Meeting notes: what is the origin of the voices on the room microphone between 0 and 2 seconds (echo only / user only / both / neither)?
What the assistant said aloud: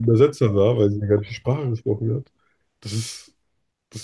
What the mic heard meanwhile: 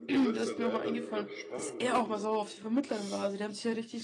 both